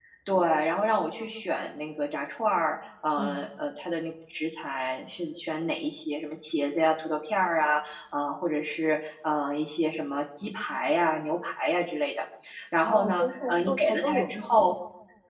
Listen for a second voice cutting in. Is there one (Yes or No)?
Yes